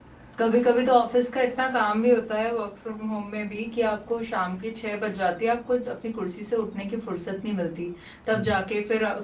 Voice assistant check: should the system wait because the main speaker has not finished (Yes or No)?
Yes